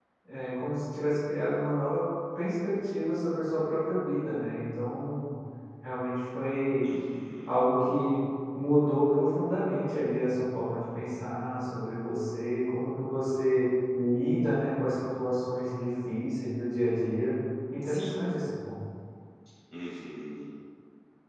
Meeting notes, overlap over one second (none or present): none